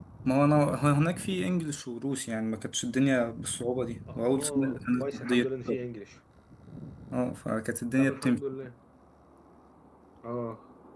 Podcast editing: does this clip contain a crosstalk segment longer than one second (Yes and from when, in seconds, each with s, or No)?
Yes, from 4.2 s